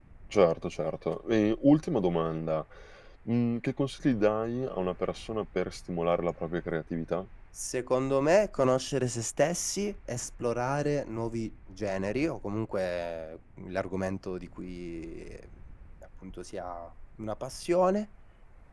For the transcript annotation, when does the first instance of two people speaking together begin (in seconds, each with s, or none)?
none